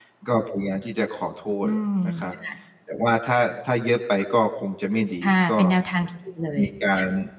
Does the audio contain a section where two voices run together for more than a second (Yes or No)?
No